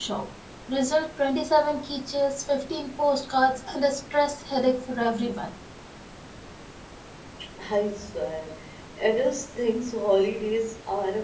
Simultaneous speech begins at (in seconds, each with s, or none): none